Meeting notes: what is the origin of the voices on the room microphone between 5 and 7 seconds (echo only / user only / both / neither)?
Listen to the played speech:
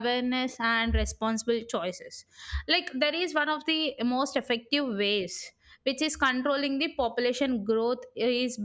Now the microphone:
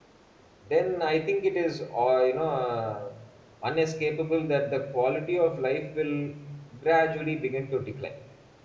user only